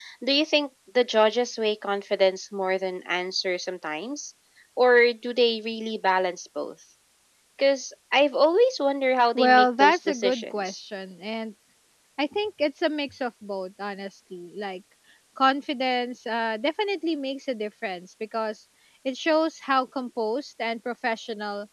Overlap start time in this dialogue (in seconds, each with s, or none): 9.3 s